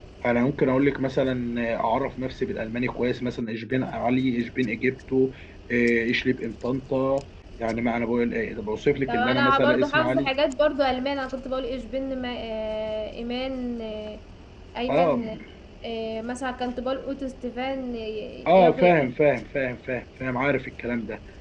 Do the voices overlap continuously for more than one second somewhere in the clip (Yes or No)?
Yes